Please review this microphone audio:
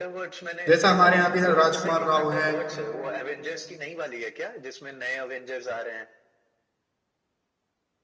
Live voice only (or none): जैसा हमारे यहाँ भी राजकुमार राव हैं